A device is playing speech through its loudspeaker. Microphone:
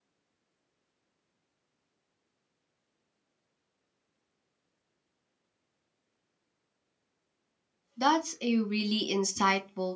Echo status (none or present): none